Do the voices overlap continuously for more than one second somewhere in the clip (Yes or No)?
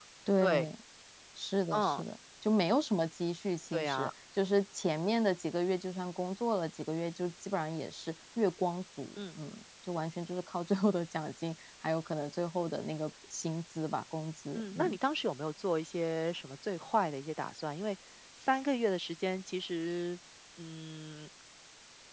No